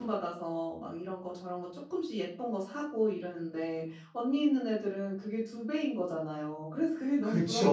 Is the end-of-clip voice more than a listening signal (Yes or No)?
Yes